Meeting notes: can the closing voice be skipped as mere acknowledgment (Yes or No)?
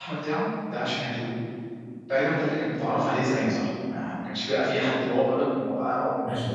No